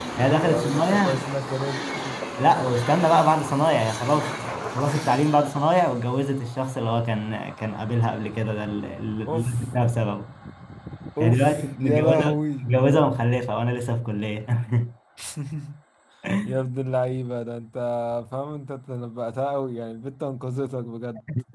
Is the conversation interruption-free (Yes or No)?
No